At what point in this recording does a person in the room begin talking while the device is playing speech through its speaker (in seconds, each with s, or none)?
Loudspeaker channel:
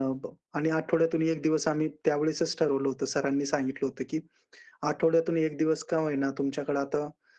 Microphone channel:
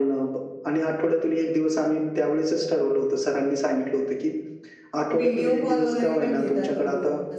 5.1 s